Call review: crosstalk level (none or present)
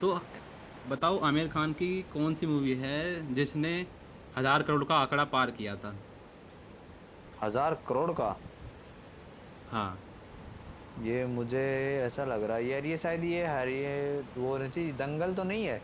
none